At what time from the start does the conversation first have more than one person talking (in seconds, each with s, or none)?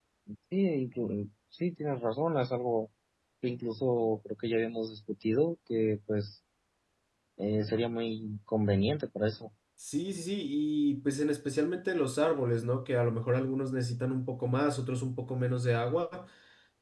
none